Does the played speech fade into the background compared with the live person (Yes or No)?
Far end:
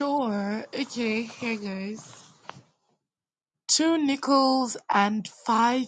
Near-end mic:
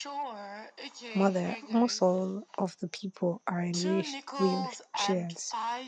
Yes